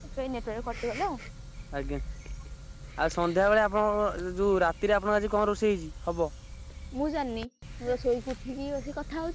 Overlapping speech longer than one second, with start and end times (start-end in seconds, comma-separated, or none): none